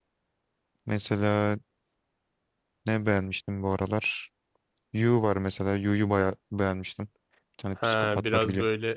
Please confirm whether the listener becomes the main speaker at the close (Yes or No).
Yes